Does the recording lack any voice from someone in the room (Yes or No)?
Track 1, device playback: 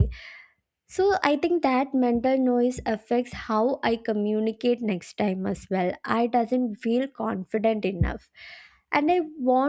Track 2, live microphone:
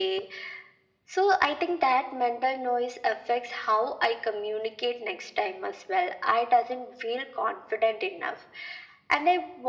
Yes